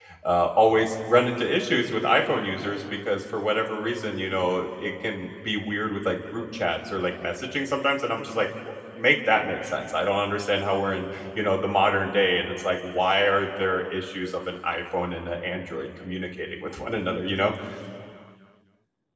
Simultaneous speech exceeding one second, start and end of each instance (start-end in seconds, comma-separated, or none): none